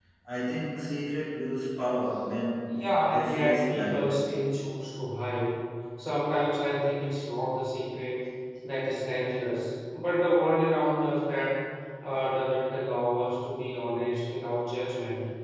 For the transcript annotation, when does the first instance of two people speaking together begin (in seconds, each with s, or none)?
2.7 s